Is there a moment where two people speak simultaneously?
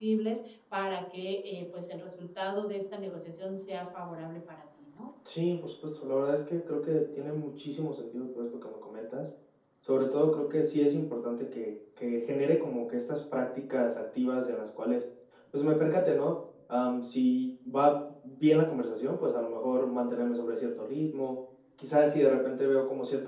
No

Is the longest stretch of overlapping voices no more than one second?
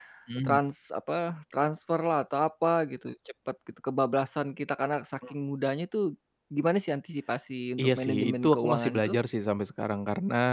No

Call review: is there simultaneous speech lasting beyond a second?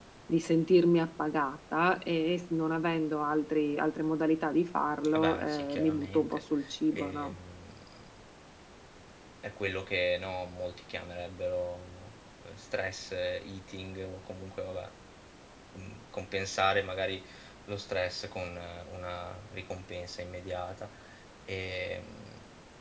Yes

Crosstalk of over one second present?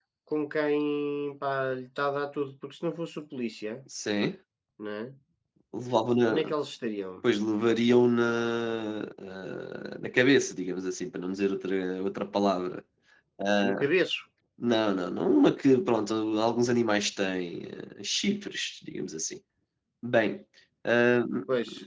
No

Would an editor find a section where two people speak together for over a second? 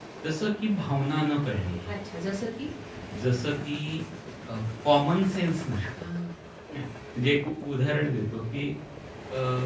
No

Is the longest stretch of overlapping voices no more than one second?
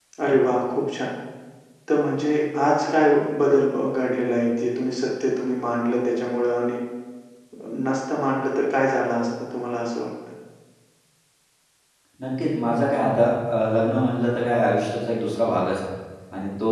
Yes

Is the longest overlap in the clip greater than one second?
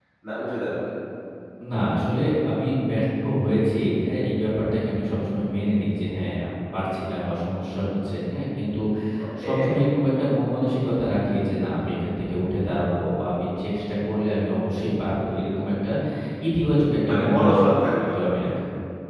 Yes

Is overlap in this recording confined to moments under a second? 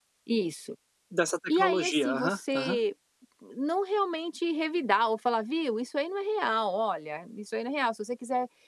No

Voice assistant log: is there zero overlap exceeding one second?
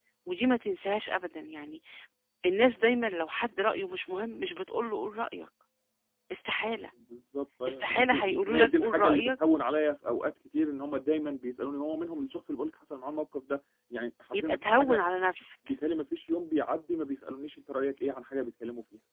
No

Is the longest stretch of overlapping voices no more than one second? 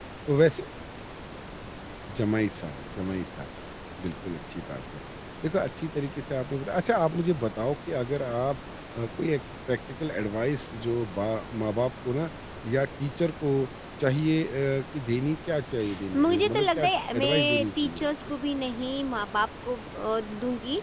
No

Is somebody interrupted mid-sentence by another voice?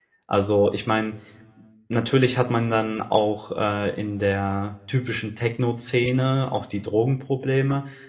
No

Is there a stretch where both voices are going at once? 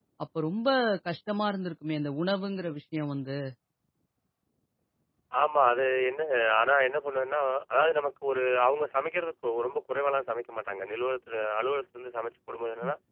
No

